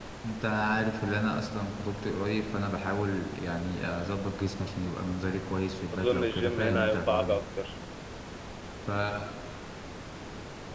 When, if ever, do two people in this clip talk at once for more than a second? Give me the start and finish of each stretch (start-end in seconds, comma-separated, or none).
5.9-7.4